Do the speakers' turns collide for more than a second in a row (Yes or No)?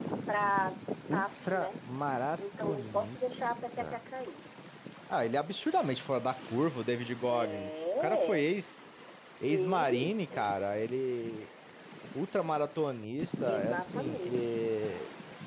Yes